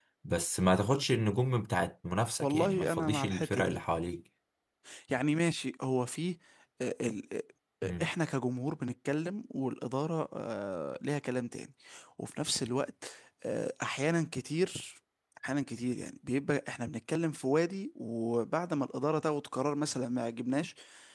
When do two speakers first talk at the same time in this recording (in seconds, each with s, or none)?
2.4 s